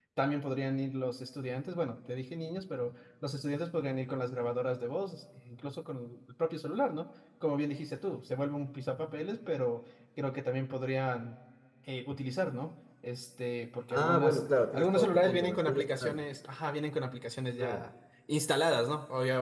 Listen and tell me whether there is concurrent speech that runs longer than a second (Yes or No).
Yes